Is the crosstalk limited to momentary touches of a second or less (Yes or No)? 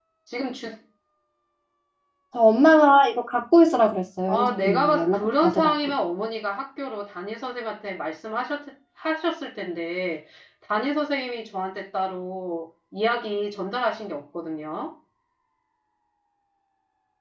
No